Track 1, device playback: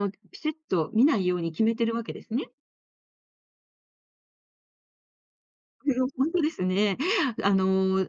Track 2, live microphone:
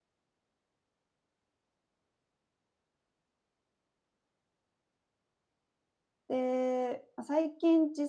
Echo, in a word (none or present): none